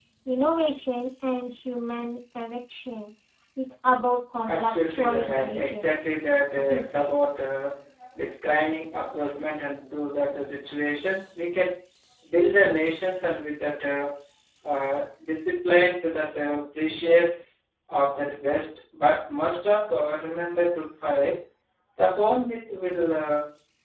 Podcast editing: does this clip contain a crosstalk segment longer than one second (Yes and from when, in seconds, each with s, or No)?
Yes, from 4.5 s